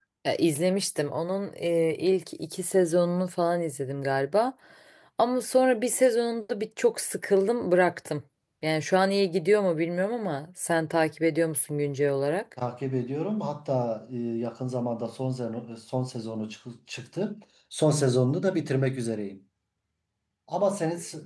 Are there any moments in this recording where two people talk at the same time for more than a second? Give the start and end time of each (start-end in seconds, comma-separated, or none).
none